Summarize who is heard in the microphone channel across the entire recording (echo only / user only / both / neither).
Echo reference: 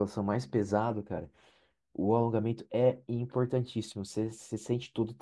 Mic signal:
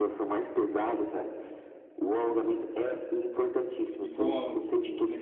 both